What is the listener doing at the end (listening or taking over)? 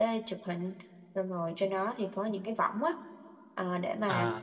listening